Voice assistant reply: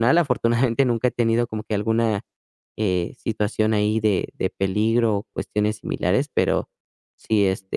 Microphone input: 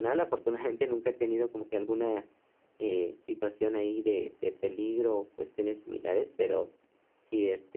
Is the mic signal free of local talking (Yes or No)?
Yes